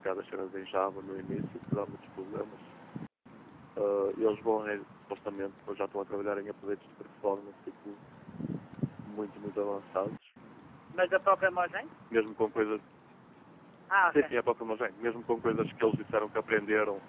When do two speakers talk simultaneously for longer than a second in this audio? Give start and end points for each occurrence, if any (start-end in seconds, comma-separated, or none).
none